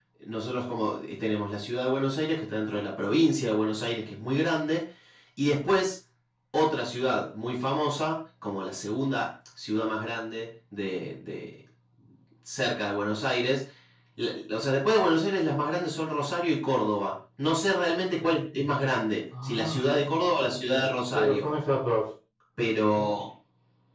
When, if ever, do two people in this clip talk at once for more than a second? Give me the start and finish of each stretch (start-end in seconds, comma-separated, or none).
none